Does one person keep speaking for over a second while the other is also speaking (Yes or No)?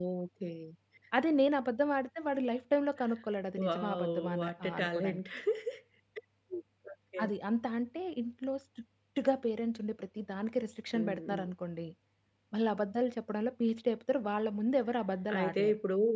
Yes